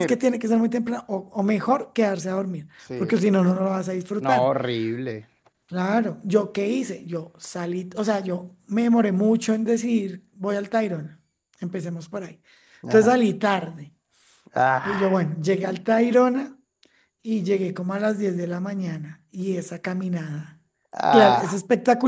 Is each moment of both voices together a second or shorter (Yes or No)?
Yes